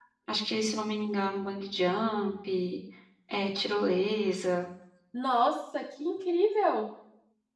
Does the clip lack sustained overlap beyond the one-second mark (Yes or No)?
Yes